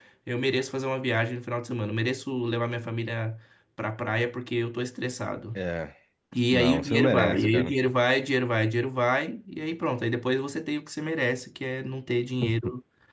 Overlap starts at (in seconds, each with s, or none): 6.5 s